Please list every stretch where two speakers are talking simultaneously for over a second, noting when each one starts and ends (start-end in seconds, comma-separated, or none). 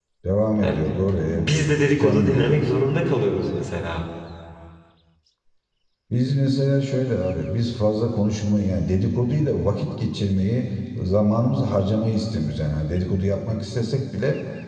1.4-2.6